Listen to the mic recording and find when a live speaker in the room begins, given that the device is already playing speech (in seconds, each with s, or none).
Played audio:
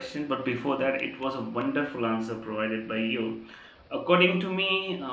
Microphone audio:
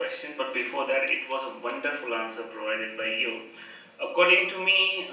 none